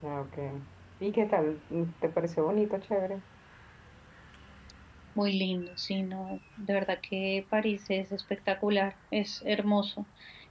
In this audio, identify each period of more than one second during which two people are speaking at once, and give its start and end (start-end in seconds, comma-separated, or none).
none